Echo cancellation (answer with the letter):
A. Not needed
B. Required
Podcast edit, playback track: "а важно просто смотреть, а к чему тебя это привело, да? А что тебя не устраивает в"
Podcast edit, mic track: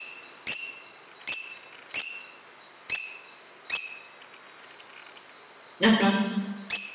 A